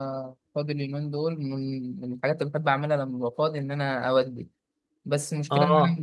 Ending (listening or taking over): listening